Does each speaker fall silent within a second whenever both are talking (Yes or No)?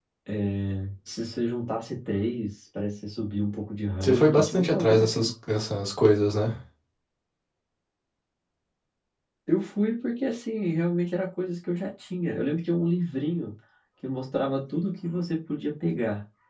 No